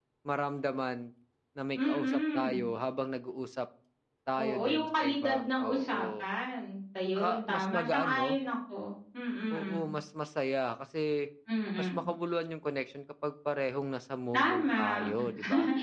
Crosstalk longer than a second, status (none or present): present